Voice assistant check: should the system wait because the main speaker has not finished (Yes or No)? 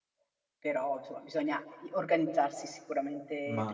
No